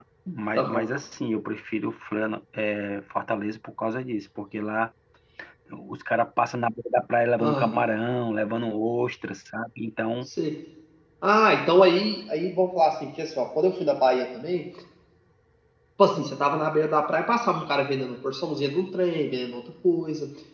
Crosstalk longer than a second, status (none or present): none